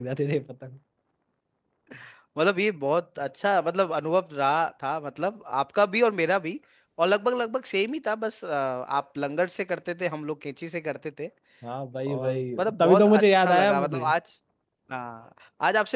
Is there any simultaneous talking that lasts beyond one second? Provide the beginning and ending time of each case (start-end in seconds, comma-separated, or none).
12.1-14.1